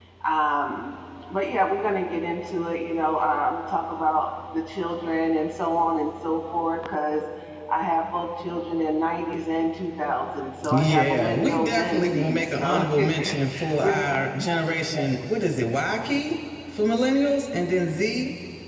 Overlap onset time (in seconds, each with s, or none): 10.6 s